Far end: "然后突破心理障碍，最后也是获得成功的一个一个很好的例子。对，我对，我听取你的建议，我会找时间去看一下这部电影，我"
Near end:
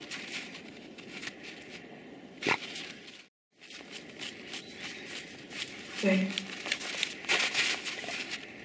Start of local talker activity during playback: 6.0 s

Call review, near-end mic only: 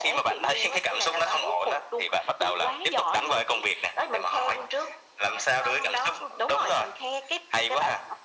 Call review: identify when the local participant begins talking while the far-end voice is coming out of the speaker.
none

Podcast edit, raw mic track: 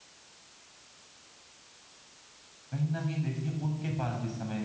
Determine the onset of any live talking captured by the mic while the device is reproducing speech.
2.7 s

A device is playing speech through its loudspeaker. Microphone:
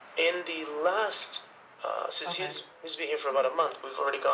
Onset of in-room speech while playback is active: 2.2 s

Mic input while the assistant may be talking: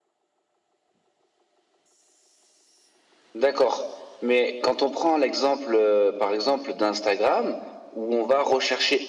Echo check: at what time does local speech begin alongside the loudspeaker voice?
none

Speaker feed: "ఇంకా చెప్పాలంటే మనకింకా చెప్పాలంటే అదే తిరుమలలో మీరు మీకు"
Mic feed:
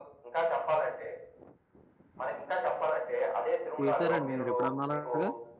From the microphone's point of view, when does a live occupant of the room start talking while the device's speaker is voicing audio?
3.9 s

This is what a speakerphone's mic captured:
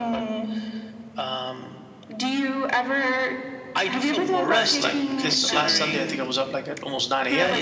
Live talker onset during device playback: 4.3 s

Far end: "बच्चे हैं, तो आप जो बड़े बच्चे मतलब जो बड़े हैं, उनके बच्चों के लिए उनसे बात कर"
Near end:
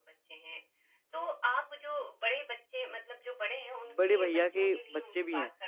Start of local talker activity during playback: 4.0 s

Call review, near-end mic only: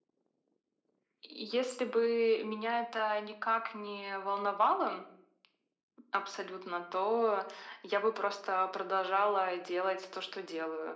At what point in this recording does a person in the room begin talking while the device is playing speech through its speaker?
none

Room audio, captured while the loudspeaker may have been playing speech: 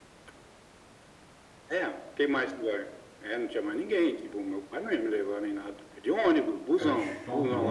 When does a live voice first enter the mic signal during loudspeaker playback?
6.8 s

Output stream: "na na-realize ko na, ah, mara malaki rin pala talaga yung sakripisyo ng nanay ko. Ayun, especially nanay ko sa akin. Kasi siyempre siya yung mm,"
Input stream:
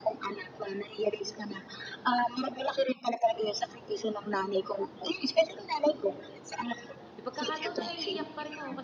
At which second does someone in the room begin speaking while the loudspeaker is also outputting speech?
7.1 s

